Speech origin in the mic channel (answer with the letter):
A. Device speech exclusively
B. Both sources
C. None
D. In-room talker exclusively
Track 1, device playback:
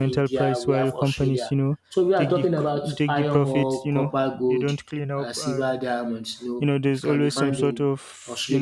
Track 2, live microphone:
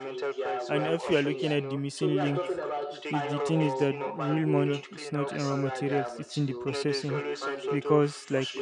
B